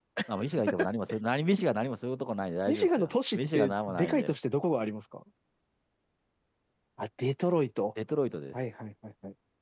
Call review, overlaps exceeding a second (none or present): present